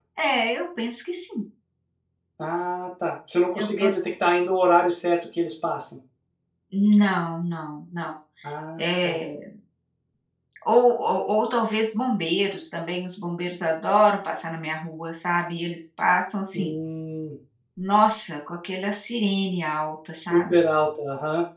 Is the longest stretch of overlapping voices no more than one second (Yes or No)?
Yes